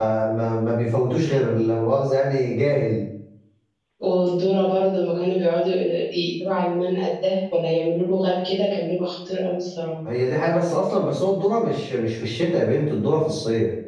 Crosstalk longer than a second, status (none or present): none